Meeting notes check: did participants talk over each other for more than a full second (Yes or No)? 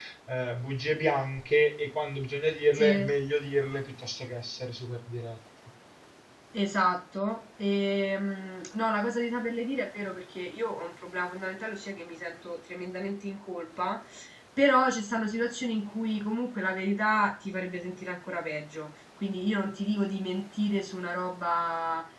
No